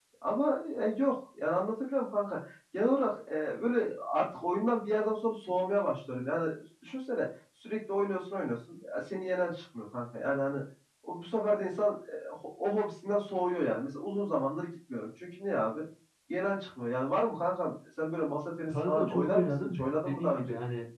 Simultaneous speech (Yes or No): Yes